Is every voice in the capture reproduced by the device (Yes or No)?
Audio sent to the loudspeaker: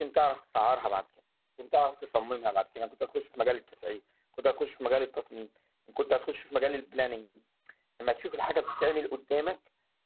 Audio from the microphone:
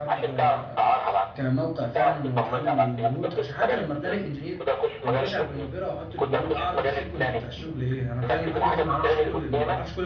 No